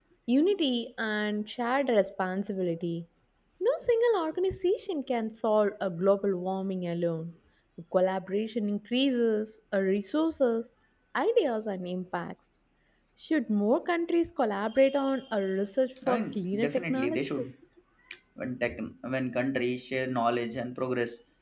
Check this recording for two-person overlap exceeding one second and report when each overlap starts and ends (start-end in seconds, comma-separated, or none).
16.1-17.5